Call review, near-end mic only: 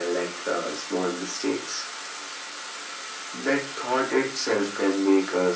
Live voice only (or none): none